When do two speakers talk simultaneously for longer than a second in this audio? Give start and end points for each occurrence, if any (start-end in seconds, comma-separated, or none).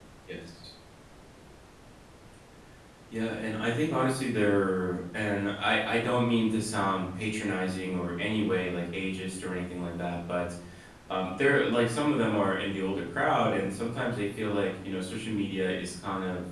none